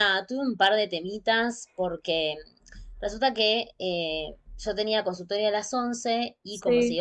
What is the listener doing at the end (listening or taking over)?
listening